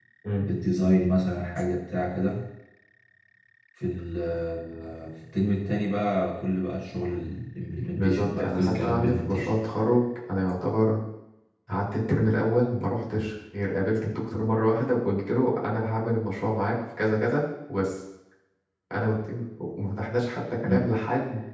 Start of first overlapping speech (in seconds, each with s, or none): 7.8 s